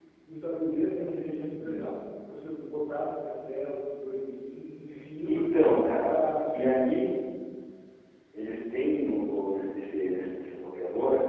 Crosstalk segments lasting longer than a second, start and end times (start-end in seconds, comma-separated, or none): none